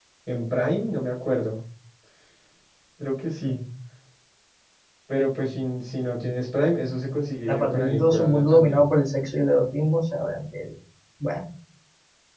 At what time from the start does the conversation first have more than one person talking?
7.5 s

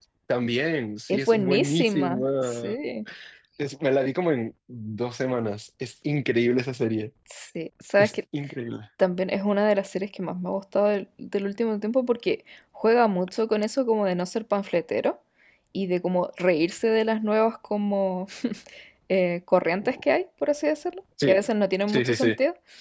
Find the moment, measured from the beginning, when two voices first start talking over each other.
1.1 s

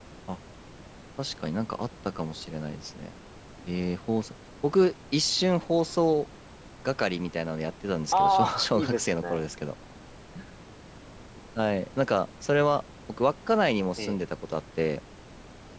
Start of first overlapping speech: 8.1 s

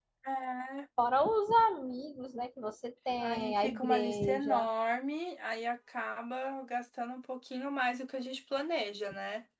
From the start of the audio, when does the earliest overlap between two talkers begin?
3.1 s

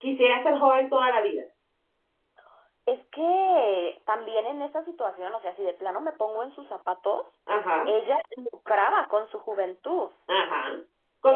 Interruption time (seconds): none

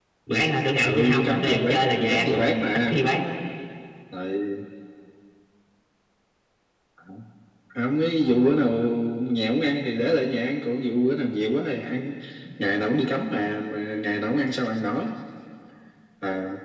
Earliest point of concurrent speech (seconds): 0.8 s

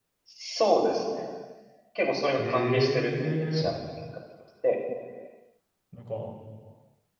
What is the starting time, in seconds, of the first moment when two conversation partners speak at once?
2.4 s

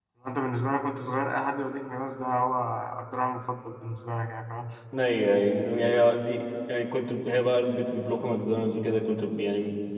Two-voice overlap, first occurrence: none

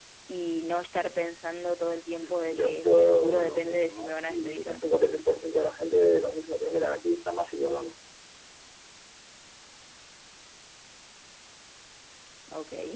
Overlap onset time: 2.2 s

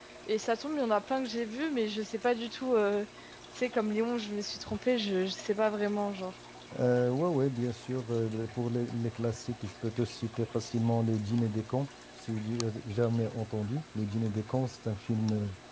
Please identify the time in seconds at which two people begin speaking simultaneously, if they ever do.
none

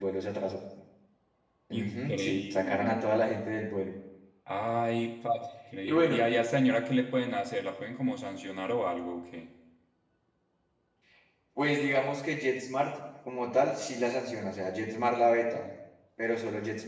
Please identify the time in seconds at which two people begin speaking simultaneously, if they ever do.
1.8 s

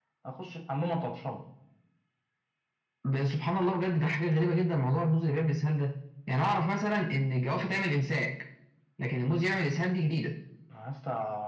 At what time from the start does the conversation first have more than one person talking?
none

